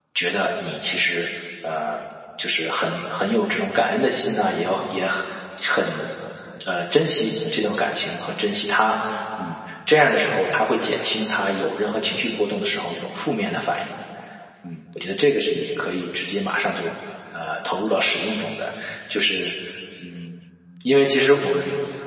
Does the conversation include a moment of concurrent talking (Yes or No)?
No